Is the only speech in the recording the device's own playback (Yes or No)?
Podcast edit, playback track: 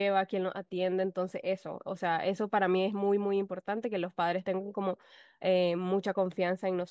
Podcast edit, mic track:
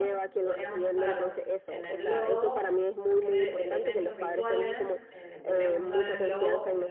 No